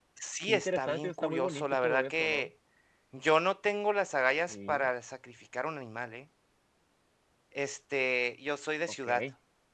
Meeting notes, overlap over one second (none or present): present